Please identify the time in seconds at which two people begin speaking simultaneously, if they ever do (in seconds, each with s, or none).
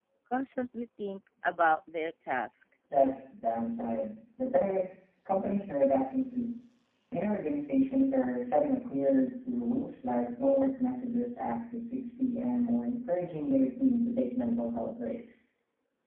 none